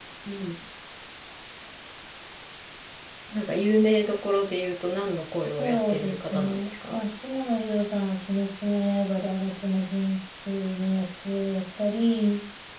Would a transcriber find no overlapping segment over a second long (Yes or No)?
No